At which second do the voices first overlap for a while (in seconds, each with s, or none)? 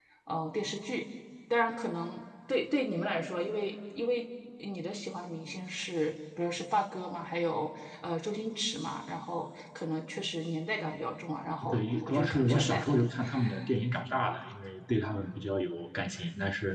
11.7 s